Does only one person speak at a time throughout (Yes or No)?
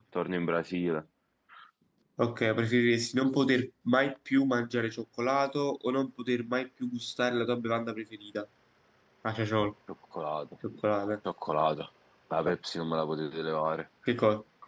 Yes